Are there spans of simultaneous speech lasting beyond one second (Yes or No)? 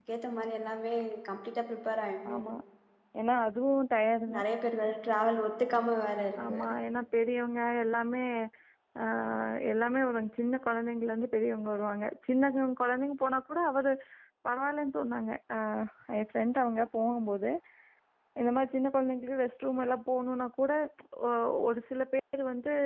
No